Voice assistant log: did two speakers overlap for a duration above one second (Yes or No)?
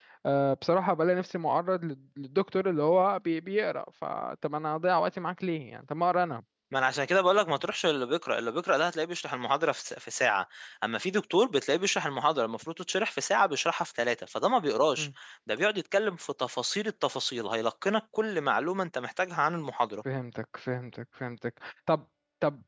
No